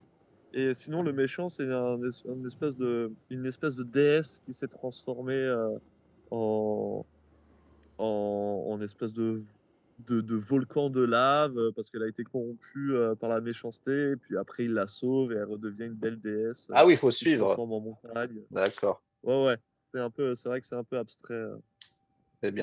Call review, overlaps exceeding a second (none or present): none